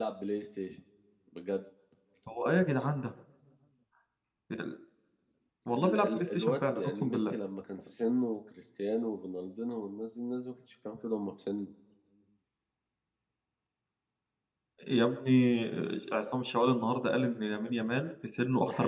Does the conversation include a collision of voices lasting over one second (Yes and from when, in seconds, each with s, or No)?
Yes, from 5.7 s